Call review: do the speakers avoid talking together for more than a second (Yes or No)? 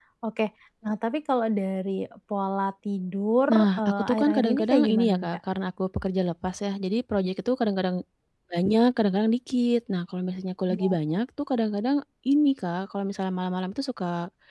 No